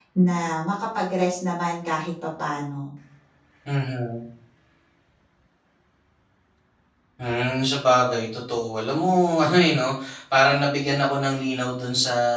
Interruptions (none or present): none